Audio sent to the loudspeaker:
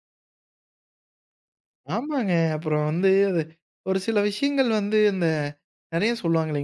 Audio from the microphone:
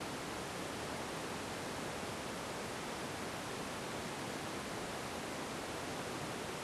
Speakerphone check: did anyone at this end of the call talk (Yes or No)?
No